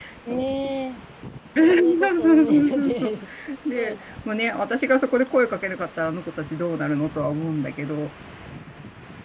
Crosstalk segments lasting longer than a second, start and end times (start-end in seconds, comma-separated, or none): 1.7-3.1